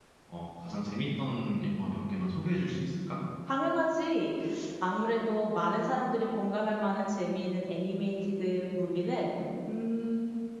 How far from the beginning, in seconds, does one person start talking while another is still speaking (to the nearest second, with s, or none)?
none